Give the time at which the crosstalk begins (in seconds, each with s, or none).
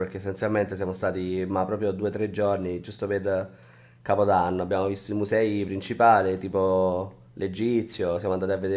none